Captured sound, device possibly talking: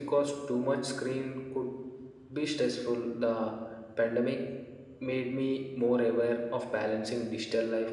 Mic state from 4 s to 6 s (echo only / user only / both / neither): echo only